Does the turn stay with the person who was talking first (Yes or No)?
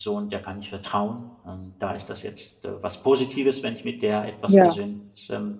Yes